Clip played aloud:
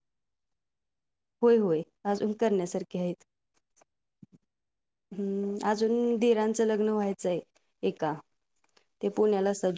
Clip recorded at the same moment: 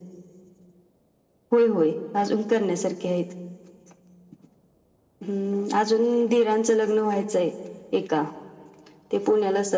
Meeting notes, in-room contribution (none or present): none